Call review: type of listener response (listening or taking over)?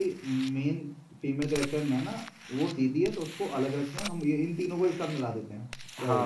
taking over